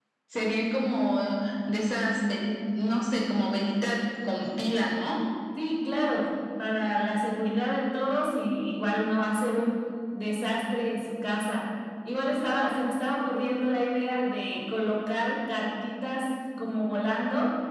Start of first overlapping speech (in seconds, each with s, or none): none